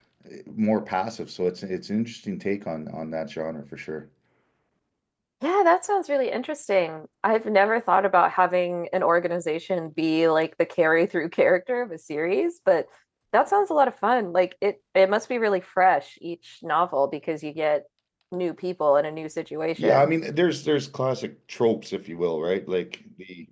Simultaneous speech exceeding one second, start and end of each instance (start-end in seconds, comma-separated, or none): none